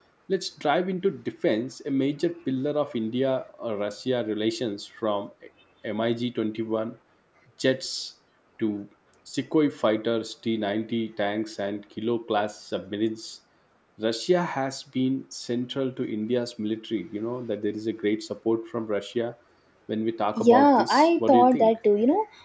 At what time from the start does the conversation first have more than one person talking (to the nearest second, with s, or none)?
20 s